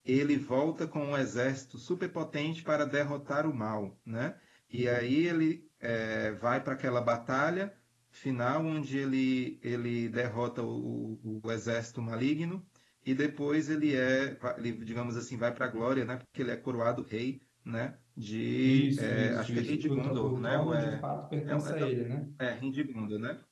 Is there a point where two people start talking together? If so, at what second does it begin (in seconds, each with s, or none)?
18.6 s